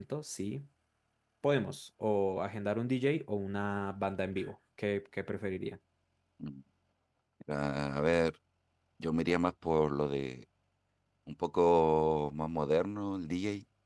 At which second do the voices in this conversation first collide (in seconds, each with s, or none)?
none